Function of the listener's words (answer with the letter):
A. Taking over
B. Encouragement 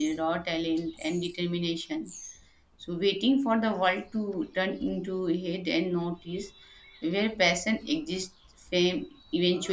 A